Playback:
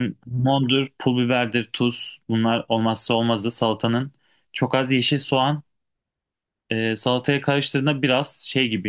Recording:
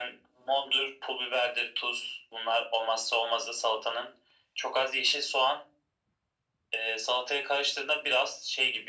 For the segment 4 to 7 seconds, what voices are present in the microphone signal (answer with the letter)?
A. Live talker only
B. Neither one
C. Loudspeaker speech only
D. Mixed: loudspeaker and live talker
C